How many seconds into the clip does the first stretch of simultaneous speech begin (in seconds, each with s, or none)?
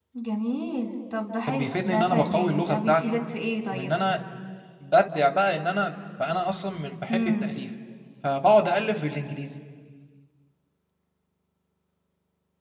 1.5 s